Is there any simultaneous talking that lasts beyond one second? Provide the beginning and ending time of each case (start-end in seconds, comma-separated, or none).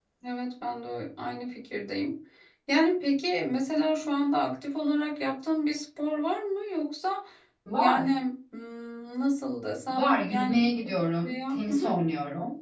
9.9-11.9